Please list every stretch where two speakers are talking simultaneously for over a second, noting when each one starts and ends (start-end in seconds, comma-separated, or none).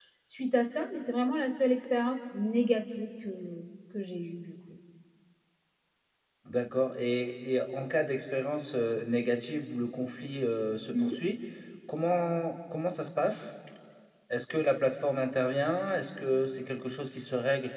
none